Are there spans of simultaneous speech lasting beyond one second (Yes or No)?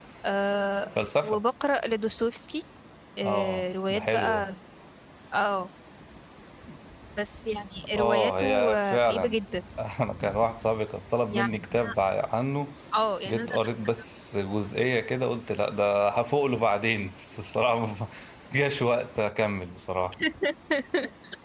Yes